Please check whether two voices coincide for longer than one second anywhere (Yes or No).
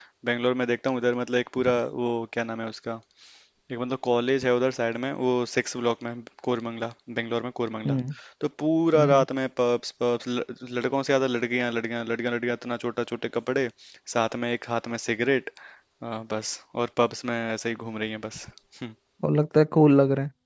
No